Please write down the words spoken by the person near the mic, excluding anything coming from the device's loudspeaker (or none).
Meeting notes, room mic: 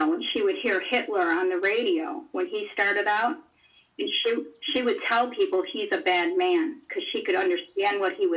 none